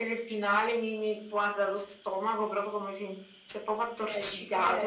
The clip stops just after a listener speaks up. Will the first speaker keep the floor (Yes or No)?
No